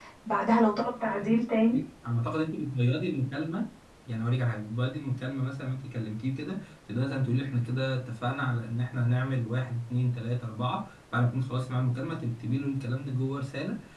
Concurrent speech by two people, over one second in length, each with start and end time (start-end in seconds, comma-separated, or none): none